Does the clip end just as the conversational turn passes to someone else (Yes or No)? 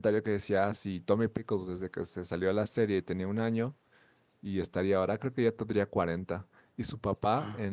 No